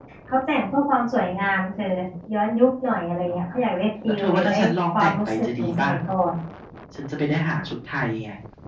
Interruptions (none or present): present